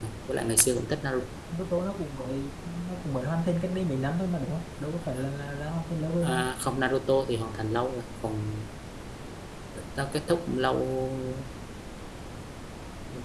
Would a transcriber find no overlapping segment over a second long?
Yes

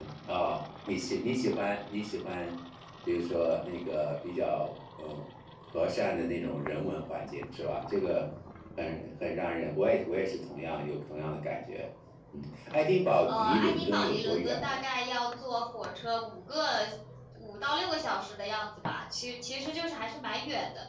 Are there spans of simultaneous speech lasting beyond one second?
Yes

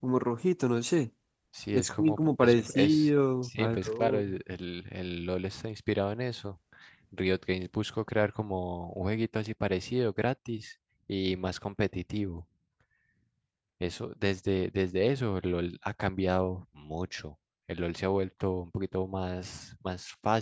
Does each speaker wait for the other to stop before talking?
No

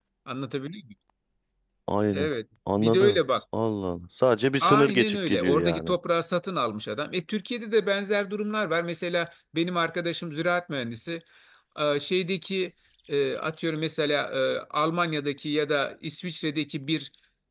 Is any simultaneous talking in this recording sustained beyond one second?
Yes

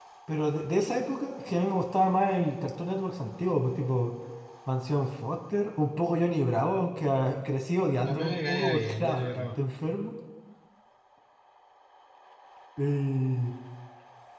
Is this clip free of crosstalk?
No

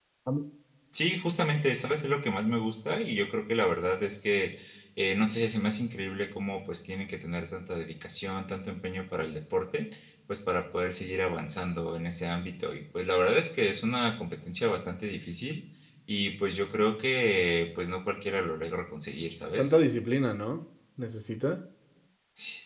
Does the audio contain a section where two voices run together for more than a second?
No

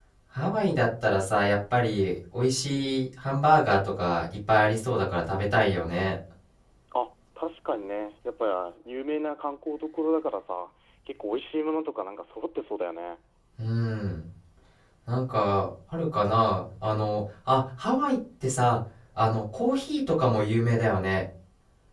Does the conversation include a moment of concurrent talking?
No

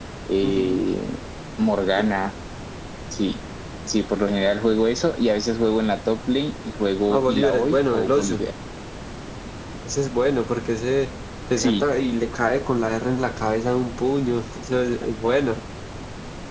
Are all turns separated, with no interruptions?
No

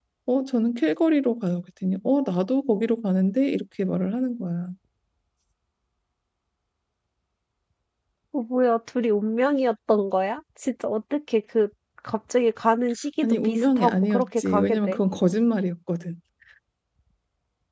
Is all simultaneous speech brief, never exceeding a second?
No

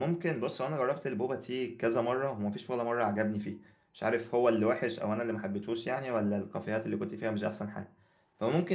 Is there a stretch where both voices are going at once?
No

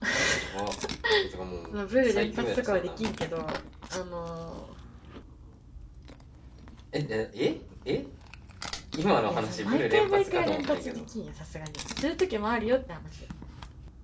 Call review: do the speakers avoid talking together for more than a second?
No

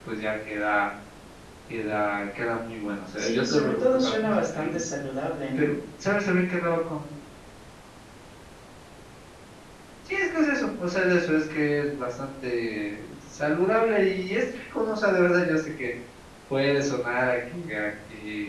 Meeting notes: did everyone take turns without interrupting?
No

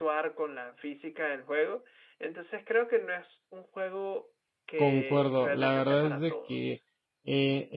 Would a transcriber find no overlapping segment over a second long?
No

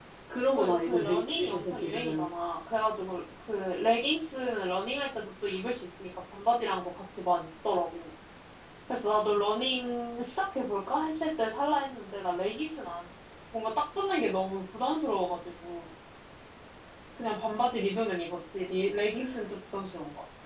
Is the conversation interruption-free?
No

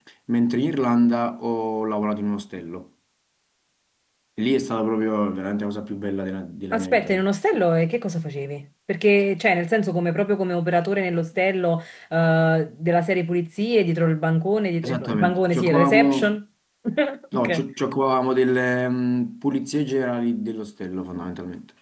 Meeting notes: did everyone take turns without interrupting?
No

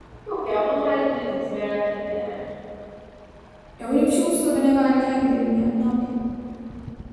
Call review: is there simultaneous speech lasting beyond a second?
No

